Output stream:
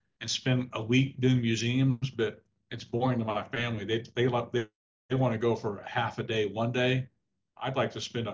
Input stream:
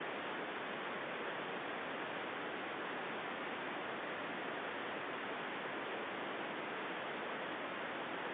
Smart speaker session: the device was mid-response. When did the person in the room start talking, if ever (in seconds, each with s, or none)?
none